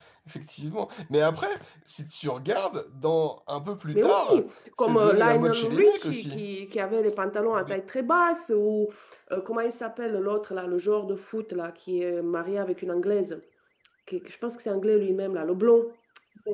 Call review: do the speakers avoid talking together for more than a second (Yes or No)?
No